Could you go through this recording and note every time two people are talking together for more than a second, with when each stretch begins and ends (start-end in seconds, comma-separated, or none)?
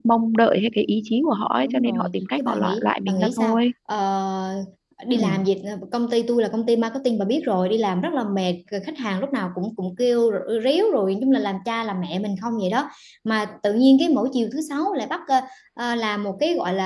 1.6-3.6